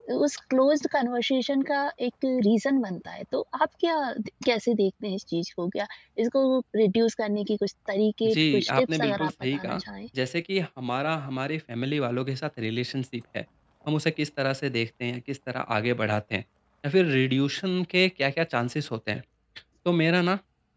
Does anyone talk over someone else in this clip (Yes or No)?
Yes